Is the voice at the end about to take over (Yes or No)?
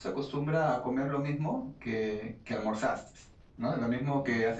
Yes